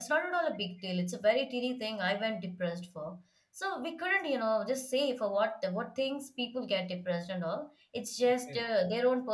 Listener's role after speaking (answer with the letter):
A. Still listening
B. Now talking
A